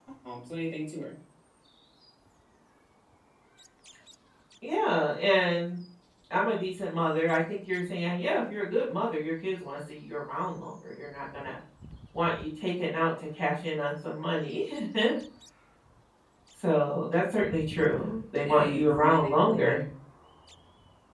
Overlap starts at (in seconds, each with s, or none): 18.4 s